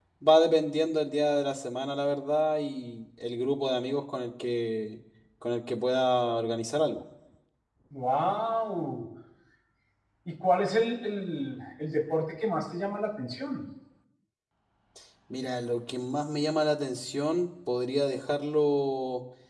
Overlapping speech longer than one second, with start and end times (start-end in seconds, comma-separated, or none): none